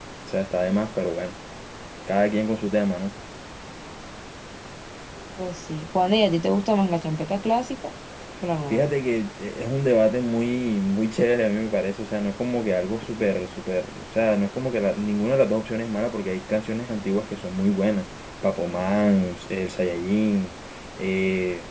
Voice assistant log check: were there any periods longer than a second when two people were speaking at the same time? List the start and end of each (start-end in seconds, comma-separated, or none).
none